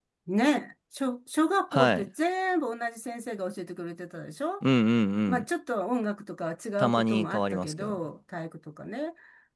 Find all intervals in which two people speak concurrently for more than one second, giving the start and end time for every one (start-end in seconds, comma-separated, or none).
6.8-8.0